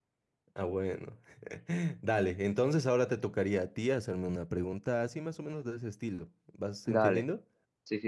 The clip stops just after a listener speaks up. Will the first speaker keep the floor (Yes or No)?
No